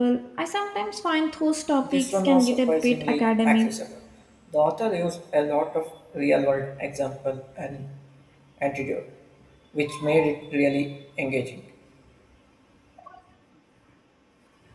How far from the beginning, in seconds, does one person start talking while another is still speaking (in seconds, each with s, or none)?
1.8 s